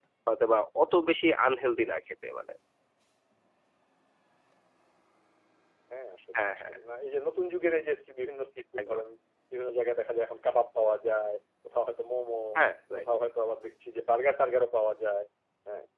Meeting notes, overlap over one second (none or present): none